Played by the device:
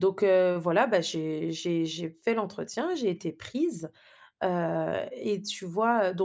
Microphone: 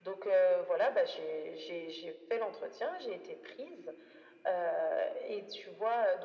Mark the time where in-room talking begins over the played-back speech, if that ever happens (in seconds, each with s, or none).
none